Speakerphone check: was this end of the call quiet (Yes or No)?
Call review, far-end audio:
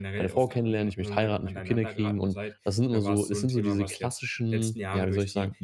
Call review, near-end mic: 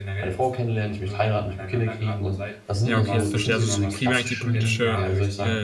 No